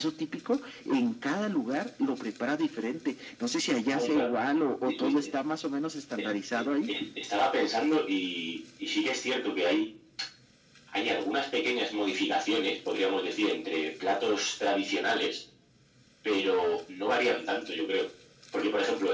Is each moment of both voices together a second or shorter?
Yes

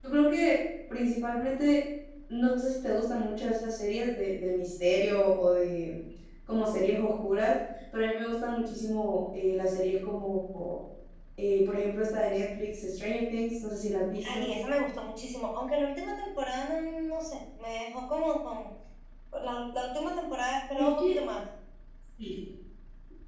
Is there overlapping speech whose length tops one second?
No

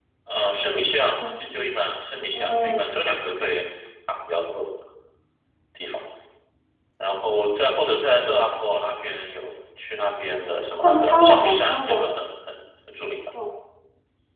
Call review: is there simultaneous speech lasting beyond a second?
Yes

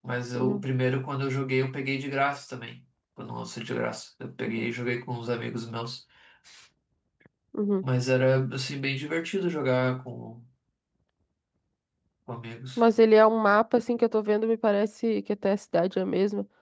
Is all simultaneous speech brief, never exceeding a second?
Yes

